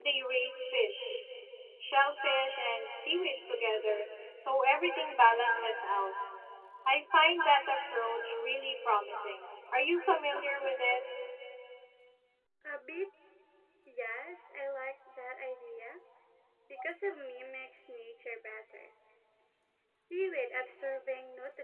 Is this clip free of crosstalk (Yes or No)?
Yes